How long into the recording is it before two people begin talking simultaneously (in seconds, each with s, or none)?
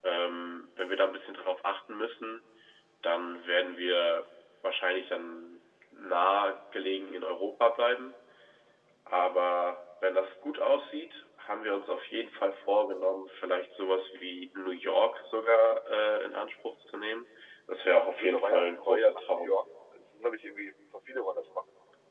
18.2 s